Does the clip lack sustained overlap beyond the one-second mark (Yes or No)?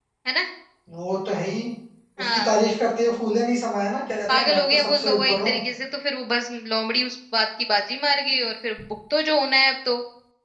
No